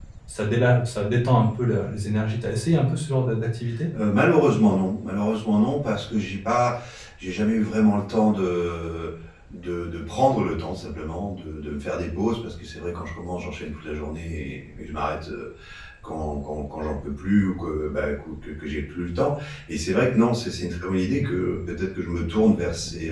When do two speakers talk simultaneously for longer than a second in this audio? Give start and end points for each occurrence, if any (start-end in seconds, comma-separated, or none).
none